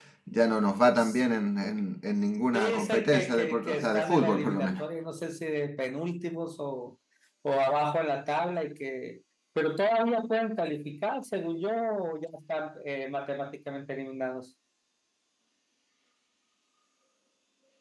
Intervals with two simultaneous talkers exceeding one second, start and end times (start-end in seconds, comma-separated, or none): 2.5-4.8